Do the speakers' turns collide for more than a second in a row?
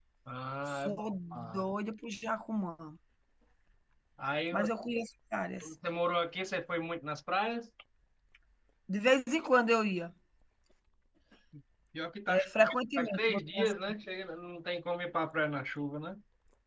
Yes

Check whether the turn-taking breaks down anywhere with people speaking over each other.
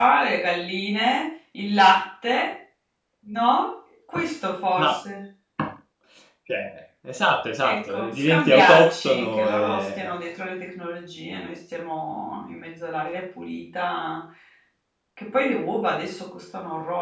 Yes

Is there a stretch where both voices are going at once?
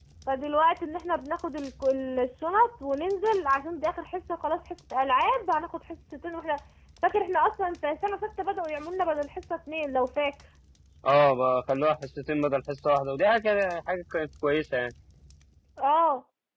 No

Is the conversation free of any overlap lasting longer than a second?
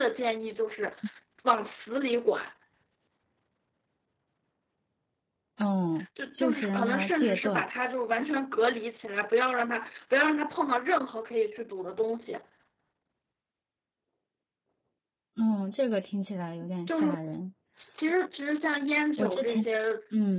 No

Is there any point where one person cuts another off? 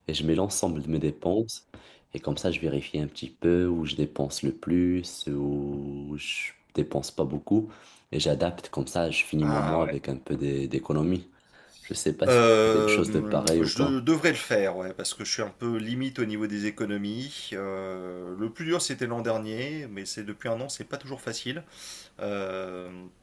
Yes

